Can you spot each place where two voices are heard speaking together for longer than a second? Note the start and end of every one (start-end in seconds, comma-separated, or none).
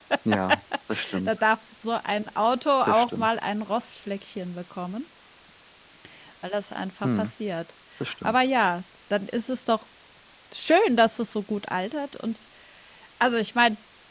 none